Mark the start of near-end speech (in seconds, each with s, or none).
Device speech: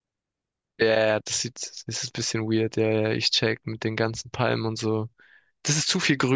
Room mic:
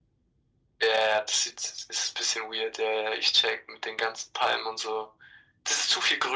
none